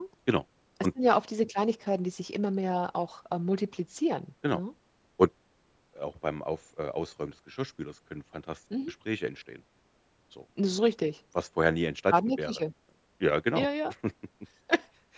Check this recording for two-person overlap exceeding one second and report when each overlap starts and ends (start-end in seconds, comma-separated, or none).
none